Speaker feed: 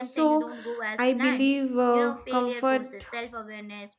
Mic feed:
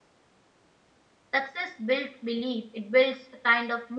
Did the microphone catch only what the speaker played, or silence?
No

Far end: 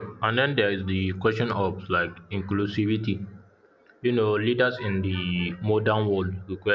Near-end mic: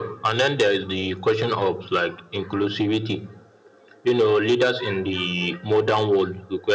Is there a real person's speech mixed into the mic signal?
No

